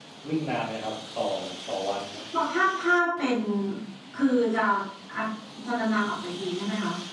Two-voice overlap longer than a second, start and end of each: none

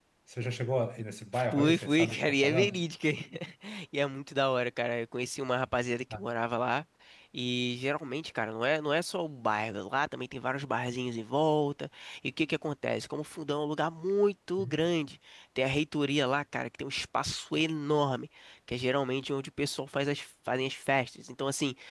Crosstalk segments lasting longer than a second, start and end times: 1.4-2.8

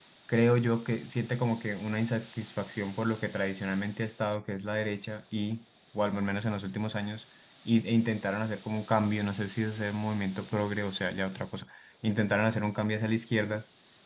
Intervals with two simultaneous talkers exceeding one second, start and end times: none

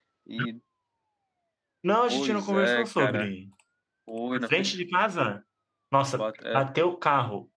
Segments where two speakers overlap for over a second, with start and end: 2.1-3.3

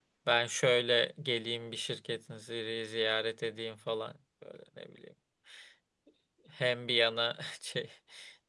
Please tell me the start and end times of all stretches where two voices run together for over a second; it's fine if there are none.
none

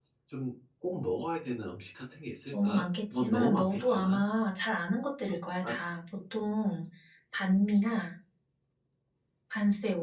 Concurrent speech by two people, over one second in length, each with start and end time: 2.5-4.2

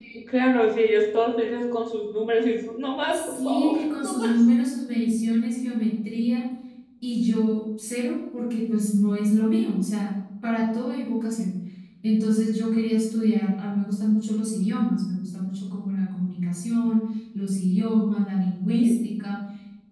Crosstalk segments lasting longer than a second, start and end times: 3.1-4.4

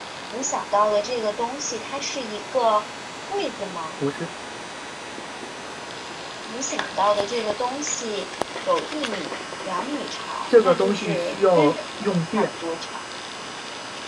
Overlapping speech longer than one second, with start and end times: 10.5-12.5

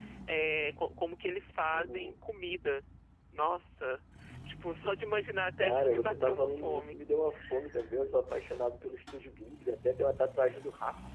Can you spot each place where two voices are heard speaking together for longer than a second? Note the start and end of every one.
5.6-6.9

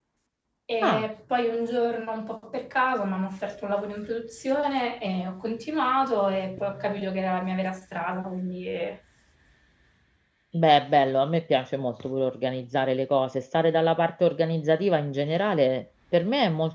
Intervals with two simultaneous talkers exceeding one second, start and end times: none

